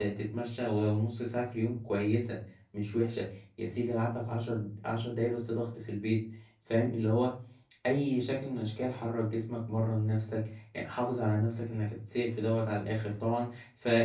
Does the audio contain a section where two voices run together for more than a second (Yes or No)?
No